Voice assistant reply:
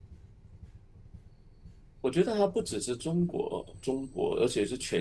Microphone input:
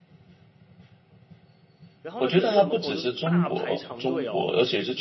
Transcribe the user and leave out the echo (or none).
然后呢，电影院门口就是大排长队哦。